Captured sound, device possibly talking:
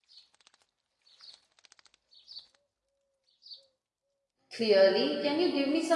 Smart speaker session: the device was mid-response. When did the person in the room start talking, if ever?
4.5 s

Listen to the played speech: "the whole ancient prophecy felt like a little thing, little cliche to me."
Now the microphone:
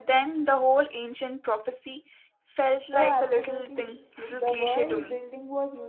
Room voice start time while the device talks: 2.9 s

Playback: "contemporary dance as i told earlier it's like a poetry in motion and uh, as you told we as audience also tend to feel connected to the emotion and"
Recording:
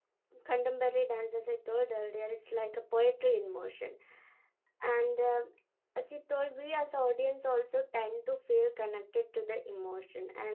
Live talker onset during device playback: none

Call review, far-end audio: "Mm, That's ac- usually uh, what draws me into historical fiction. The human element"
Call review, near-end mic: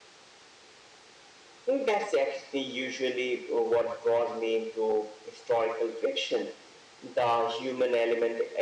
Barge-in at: none

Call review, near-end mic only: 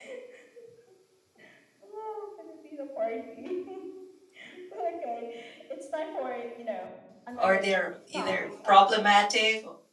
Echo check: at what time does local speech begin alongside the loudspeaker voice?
7.4 s

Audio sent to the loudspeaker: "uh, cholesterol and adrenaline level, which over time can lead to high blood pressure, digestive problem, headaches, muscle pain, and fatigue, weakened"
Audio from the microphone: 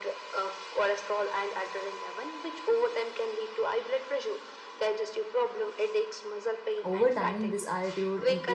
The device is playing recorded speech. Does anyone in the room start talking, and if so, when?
6.8 s

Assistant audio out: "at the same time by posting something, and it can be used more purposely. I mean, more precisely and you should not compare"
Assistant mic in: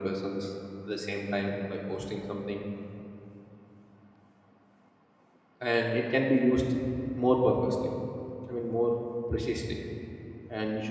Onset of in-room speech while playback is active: none

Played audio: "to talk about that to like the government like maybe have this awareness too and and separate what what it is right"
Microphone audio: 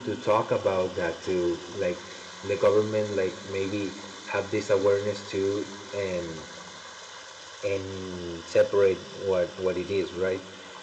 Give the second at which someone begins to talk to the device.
none

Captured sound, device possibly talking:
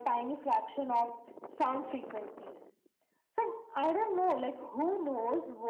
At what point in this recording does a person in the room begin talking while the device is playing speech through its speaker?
none

